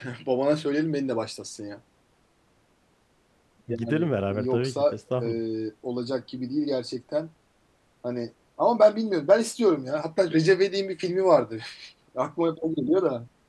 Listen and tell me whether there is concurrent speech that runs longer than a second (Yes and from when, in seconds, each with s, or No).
Yes, from 3.7 s